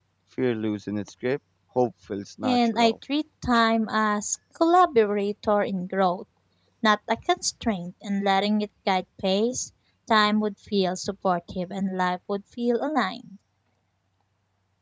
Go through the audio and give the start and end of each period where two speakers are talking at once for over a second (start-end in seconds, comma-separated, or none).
none